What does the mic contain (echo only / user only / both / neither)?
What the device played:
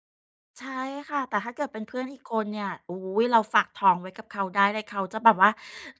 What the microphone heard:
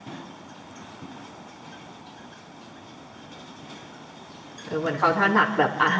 user only